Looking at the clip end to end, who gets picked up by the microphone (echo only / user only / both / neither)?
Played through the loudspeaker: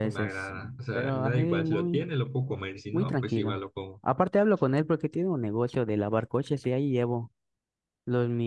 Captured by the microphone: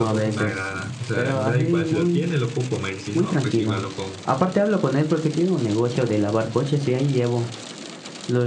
echo only